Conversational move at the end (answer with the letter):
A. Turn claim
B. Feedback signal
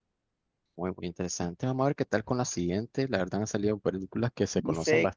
A